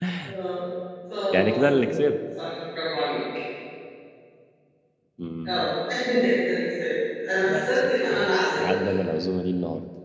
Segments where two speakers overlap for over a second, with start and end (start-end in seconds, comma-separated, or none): 7.4-8.7